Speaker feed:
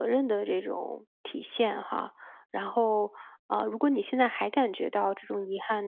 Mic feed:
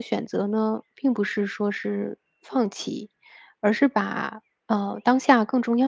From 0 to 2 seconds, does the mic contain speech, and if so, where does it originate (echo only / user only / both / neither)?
user only